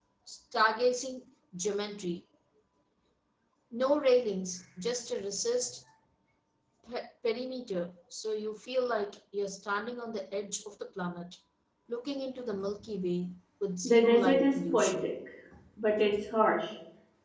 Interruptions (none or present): present